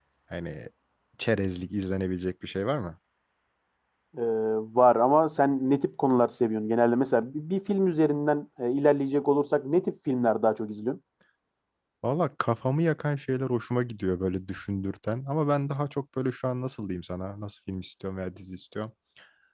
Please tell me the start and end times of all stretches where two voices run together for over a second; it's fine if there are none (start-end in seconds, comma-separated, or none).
none